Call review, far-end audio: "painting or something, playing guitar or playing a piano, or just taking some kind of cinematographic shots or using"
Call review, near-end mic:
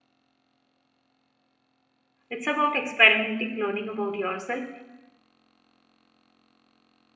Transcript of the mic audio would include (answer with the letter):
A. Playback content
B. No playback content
B